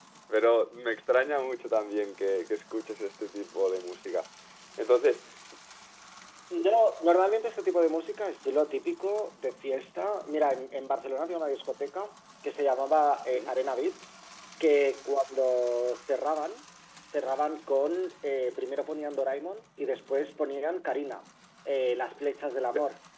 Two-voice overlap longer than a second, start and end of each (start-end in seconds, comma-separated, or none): none